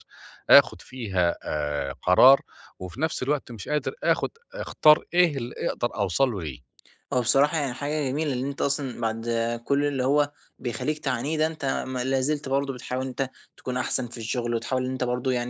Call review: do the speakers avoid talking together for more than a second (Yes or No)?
Yes